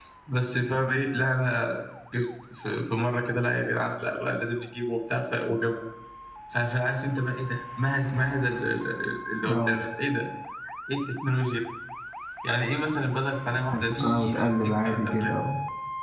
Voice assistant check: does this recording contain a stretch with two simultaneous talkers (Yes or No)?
Yes